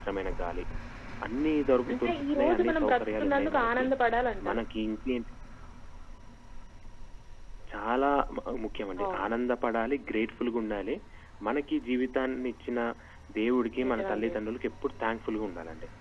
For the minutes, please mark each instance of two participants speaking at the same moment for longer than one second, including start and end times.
1.9-3.9

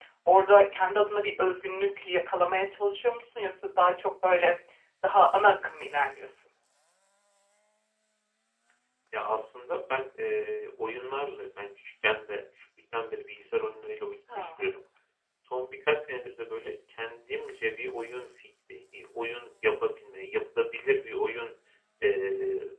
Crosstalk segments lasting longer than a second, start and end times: none

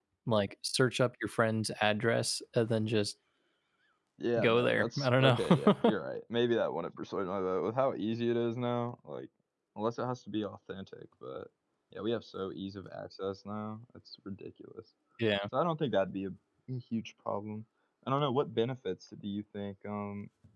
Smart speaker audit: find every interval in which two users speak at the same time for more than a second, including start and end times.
4.4-5.9

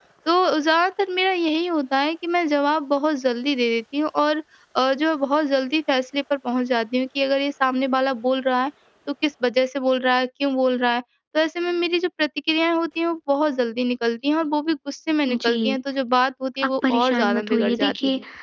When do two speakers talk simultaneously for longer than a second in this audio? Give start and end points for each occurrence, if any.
16.6-17.9

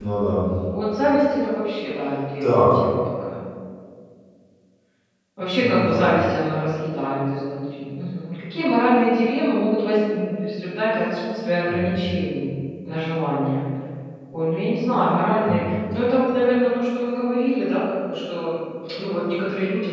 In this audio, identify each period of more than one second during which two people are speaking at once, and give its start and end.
none

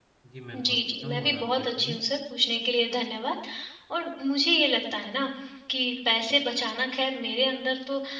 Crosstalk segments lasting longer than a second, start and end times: 0.5-2.0

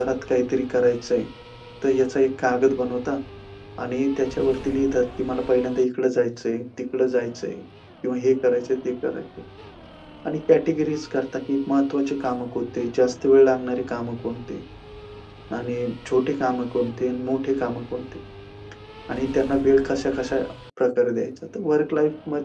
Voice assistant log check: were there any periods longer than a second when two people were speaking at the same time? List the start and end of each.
none

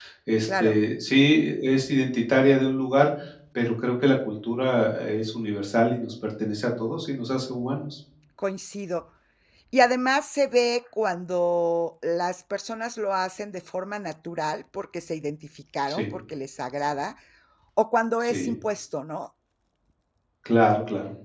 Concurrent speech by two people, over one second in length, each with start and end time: none

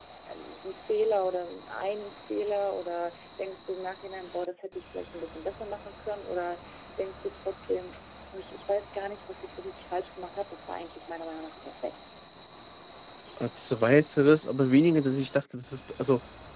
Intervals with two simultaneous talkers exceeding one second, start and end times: none

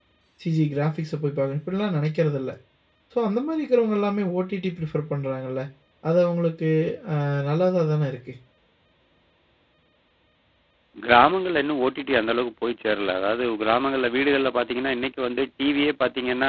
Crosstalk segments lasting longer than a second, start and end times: none

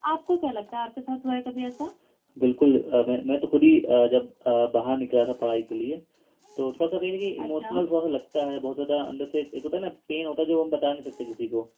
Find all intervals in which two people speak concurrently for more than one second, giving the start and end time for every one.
none

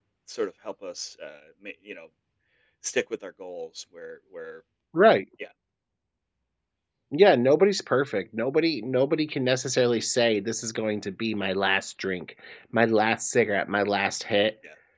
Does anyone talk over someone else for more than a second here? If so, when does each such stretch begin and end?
none

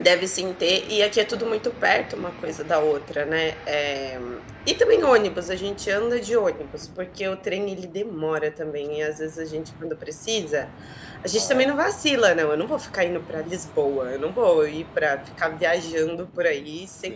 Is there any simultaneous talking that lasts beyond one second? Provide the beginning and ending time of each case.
none

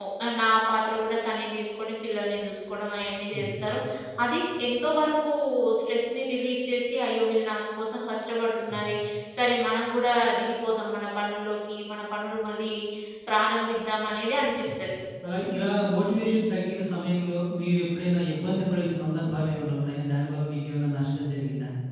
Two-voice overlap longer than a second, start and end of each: none

